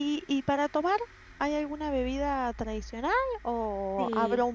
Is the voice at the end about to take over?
No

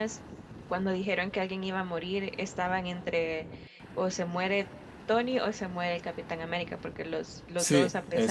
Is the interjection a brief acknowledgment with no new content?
Yes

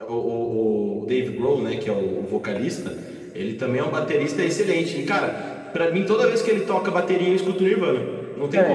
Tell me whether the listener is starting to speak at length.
Yes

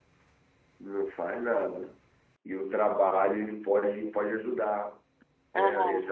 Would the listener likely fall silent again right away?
Yes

